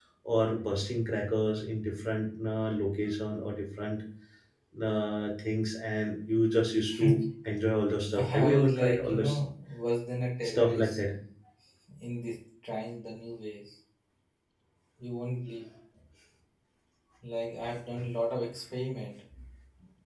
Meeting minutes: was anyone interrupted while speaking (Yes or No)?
Yes